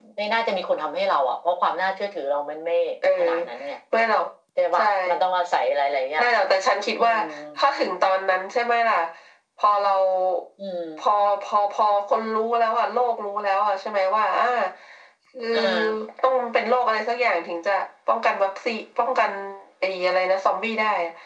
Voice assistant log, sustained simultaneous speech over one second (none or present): none